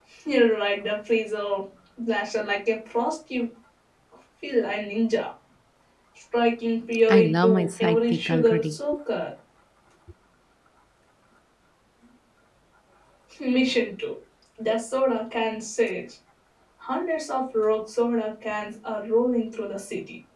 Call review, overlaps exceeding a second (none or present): present